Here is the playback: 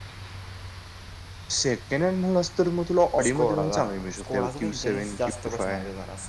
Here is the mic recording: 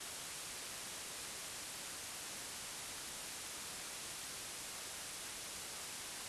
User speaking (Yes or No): No